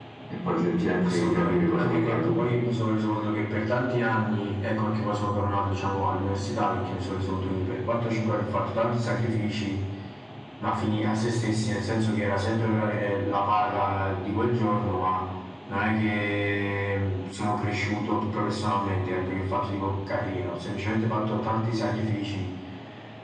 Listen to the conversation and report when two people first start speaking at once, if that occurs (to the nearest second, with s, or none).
1 s